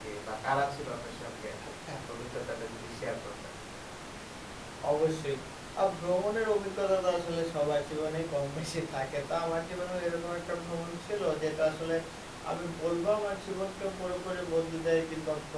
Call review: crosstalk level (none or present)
none